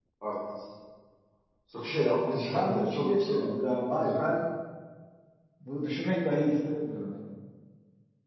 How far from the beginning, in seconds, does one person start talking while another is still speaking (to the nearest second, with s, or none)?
2 s